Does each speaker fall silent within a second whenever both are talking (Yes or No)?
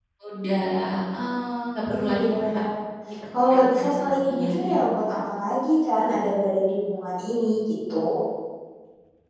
No